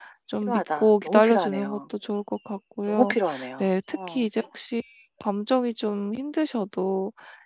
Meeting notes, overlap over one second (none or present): present